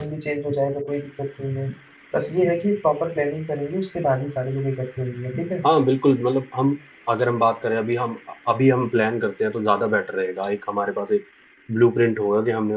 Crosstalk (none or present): none